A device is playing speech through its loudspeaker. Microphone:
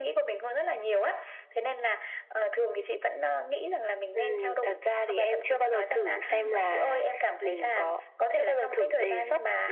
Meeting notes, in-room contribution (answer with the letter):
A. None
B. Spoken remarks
B